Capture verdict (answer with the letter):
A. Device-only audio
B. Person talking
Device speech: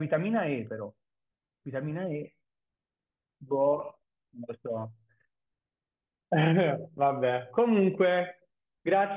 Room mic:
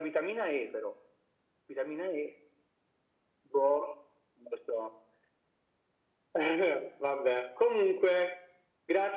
A